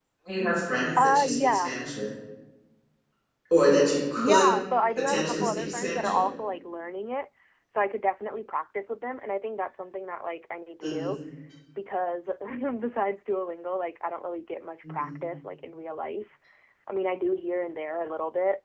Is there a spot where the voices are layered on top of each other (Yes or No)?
Yes